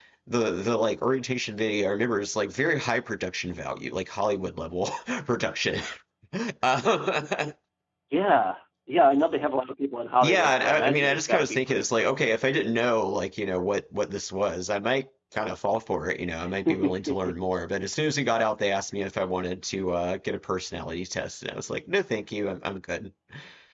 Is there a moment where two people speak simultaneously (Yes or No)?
Yes